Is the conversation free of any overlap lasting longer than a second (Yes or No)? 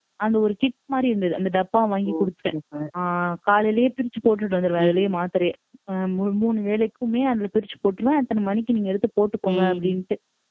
Yes